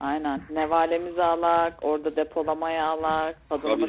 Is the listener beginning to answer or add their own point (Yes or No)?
Yes